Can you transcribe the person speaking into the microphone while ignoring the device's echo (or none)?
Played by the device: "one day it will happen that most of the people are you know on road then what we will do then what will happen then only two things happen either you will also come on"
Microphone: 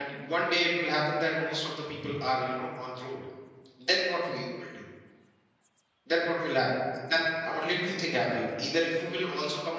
none